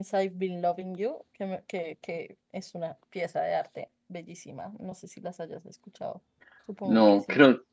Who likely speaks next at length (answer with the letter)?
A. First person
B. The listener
B